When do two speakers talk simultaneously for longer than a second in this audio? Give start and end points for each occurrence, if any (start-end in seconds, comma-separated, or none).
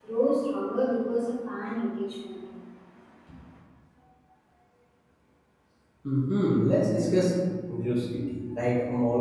none